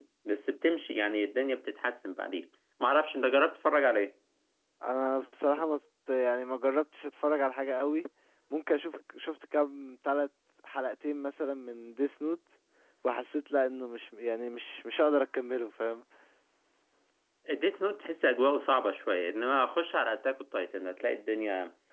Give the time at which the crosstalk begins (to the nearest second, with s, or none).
none